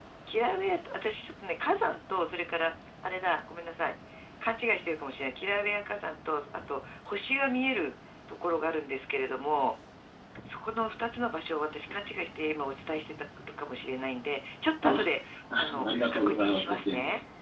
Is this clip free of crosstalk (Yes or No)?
No